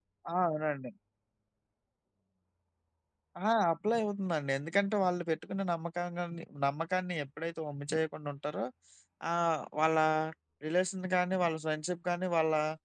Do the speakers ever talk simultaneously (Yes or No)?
No